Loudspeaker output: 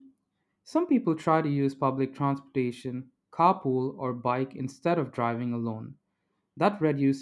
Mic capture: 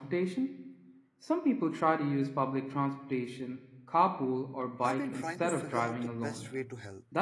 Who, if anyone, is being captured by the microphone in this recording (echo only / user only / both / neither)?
both